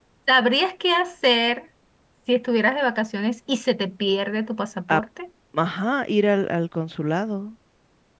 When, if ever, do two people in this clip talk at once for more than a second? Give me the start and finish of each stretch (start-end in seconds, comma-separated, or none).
none